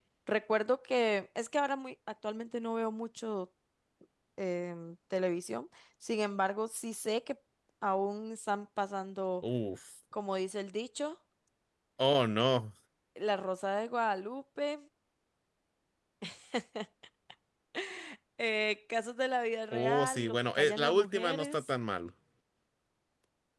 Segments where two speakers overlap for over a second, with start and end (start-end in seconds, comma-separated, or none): 19.7-21.6